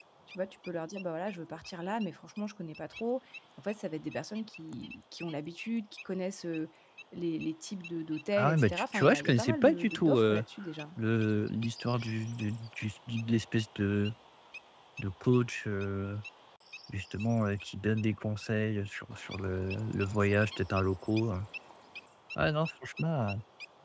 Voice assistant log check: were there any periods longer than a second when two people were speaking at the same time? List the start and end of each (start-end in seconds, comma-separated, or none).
8.3-10.4